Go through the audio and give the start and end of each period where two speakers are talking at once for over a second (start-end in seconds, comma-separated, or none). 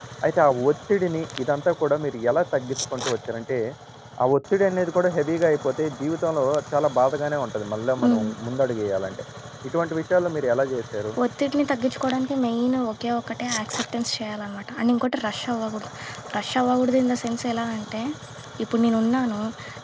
none